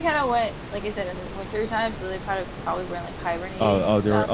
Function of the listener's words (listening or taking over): taking over